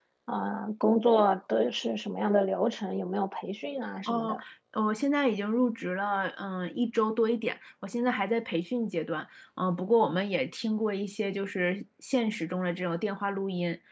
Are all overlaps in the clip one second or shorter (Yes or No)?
Yes